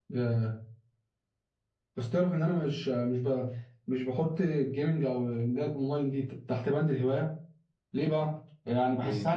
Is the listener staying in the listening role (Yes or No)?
Yes